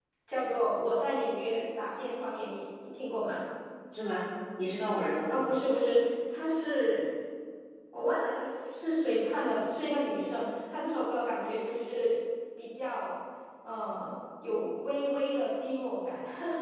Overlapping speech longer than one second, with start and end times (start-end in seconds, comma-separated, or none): none